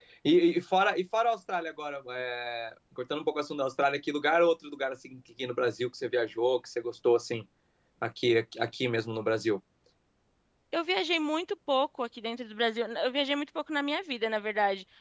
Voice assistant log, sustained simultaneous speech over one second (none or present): none